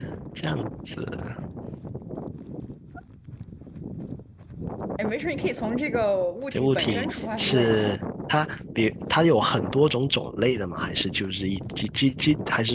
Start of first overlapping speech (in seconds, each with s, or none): 6.5 s